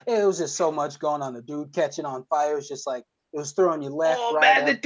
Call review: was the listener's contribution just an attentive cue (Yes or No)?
No